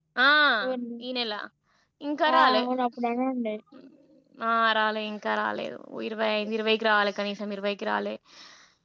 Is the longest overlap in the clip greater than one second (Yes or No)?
No